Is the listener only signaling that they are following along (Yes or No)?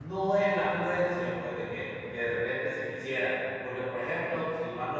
Yes